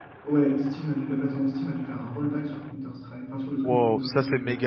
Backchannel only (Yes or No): No